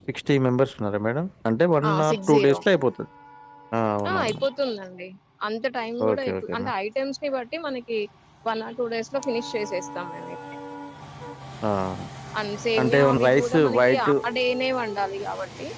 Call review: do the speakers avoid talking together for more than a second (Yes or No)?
No